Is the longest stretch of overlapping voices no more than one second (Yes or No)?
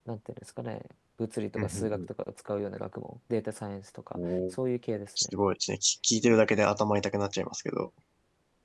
Yes